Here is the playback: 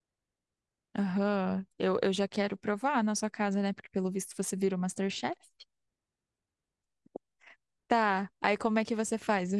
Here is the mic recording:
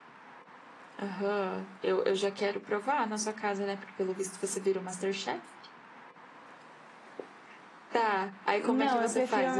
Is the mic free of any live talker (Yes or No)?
No